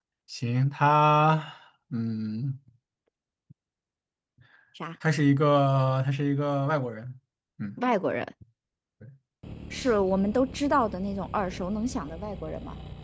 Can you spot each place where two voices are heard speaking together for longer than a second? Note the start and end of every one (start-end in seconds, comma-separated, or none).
none